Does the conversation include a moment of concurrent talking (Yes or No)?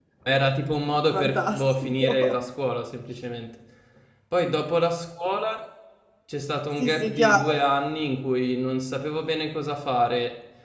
Yes